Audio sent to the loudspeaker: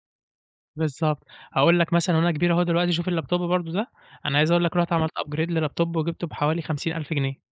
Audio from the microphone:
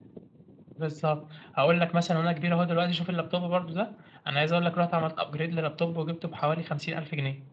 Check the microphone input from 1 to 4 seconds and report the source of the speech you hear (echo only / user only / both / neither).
echo only